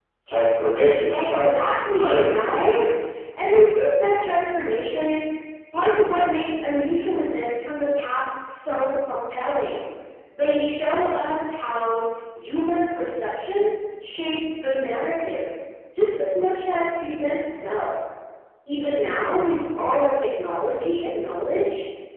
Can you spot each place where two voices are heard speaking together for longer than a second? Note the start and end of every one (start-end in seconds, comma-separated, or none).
1.1-2.8